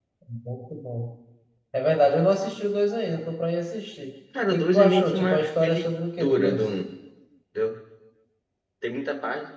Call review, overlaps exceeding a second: present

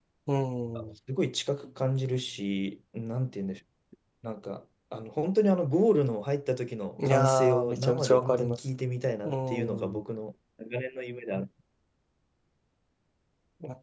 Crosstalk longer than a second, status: present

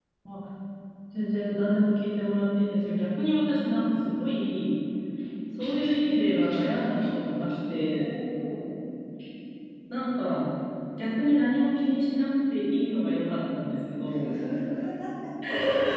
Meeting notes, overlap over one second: none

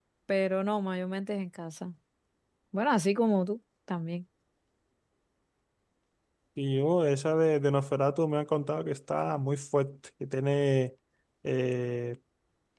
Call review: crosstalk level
none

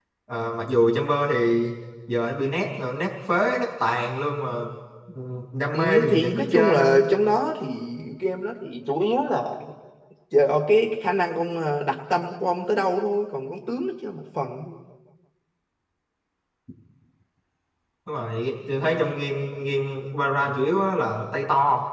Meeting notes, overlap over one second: present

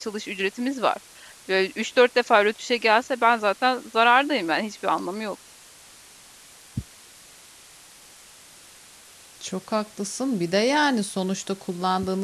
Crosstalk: none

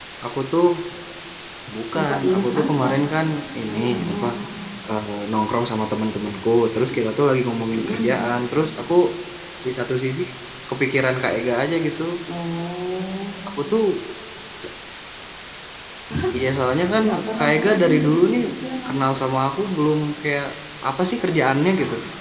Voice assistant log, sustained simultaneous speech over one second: present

